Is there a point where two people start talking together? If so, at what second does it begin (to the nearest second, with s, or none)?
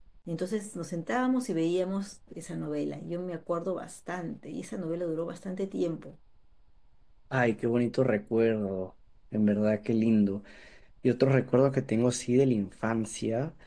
none